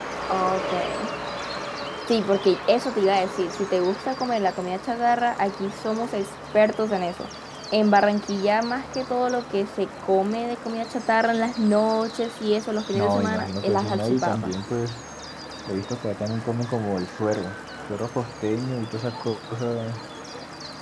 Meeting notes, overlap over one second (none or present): present